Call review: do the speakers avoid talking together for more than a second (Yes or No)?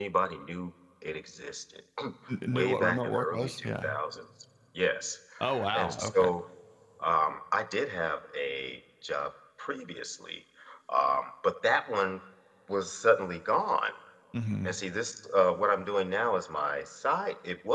No